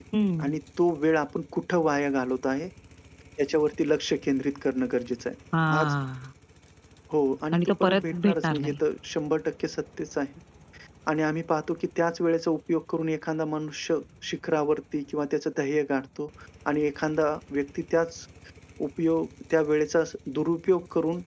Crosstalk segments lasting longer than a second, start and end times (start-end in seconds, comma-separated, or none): 7.5-8.8